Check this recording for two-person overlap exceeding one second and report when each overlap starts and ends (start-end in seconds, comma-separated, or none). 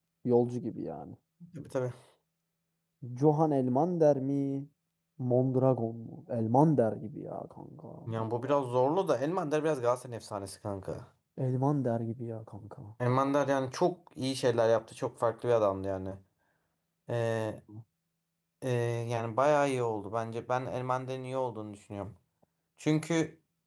none